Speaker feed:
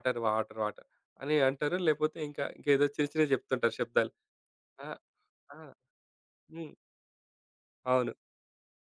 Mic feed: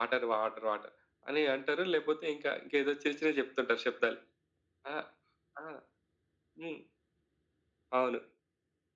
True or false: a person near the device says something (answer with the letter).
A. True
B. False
B